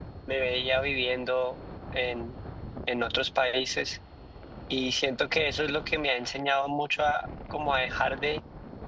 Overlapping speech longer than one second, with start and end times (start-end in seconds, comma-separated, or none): none